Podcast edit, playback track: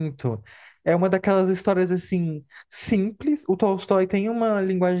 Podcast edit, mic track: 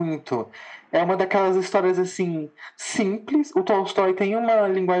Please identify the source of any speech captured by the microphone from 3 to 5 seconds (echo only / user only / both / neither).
echo only